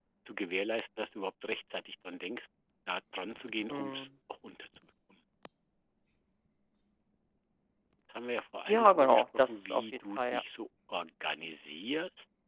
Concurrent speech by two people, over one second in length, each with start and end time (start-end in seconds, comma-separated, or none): 8.7-10.4